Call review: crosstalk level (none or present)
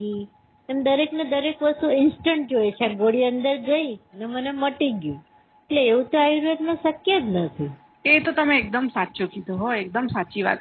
none